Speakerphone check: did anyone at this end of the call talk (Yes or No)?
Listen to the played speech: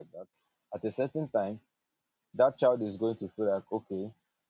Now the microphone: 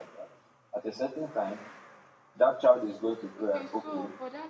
Yes